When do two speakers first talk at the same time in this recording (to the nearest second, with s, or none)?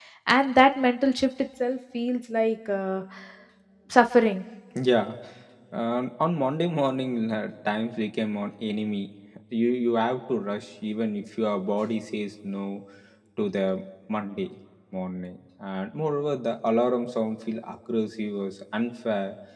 none